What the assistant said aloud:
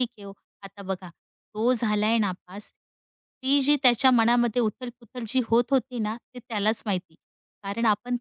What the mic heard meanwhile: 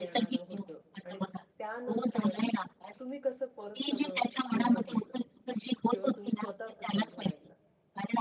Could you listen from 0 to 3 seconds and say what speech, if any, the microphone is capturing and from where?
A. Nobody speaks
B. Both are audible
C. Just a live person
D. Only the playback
B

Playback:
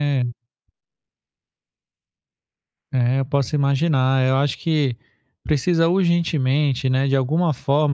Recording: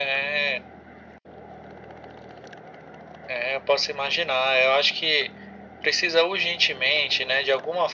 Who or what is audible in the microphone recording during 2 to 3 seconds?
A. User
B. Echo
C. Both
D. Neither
D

